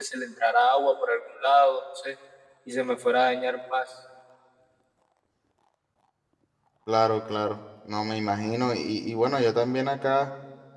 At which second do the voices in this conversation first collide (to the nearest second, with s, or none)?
none